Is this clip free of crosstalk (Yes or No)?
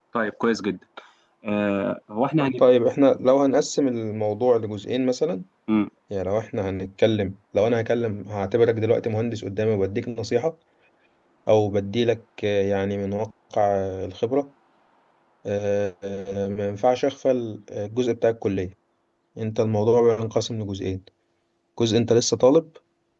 Yes